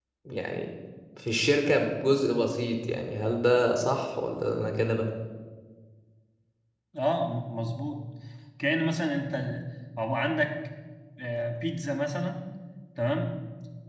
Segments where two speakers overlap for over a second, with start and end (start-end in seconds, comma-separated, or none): none